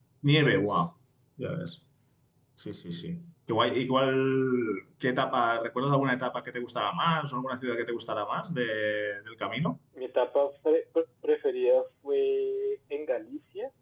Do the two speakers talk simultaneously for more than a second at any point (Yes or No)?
No